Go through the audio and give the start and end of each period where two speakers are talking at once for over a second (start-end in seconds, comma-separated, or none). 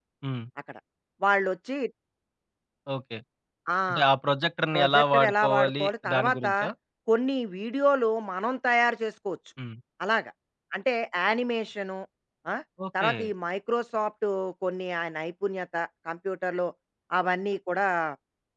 4.7-6.5